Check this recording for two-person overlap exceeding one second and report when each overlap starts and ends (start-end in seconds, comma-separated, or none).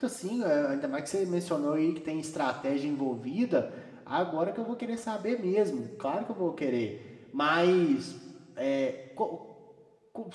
none